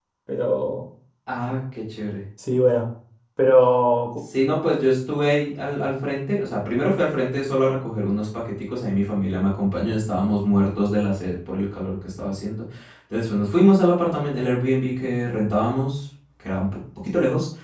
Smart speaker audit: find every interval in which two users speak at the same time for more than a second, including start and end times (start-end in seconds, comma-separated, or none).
none